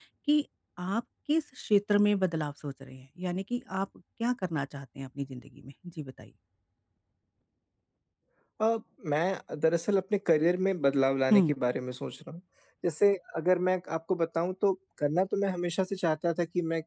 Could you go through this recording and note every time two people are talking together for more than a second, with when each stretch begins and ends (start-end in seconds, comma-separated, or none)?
none